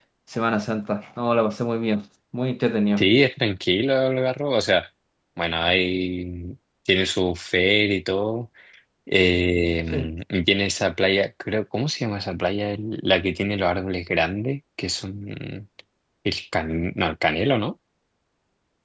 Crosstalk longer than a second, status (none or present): none